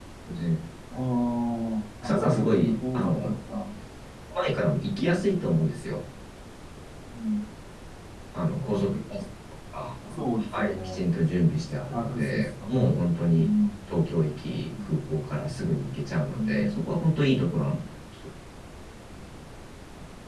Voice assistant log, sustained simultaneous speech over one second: present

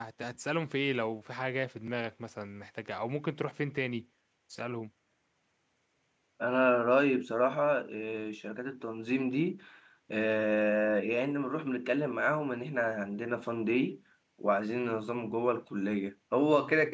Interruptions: none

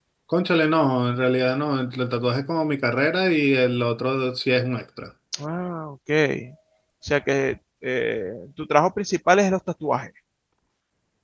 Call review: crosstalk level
none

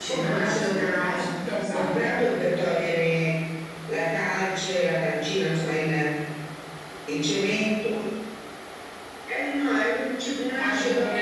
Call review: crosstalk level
present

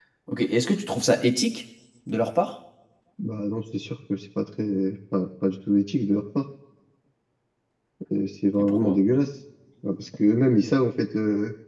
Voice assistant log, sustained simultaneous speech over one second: none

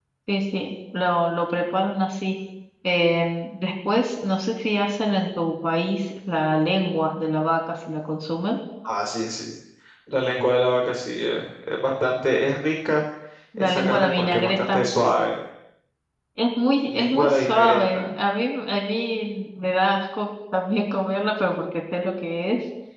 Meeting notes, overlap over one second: present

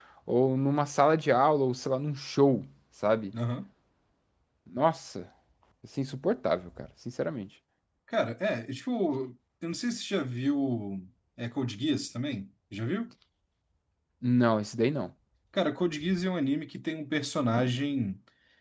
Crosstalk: none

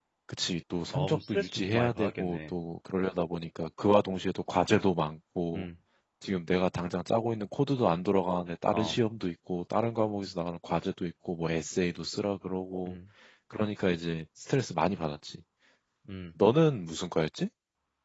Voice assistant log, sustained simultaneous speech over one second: present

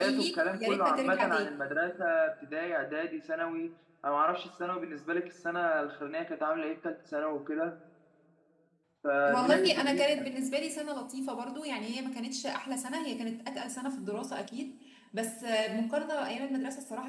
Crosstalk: present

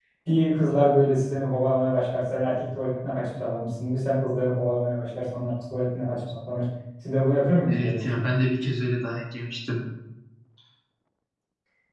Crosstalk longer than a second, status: none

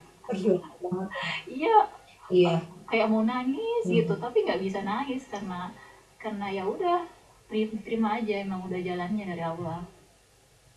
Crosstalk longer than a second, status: none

